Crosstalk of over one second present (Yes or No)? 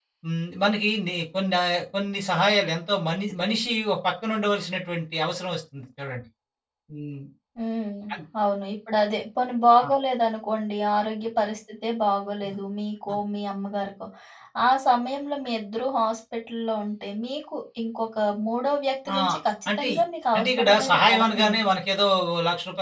Yes